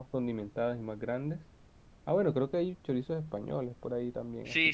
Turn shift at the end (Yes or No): Yes